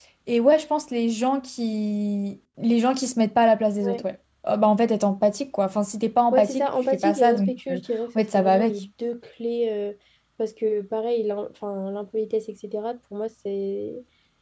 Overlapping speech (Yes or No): Yes